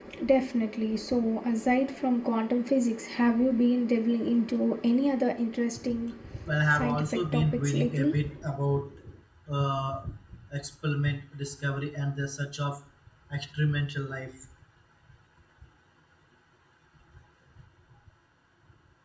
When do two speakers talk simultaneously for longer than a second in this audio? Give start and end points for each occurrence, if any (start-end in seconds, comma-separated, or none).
6.7-8.2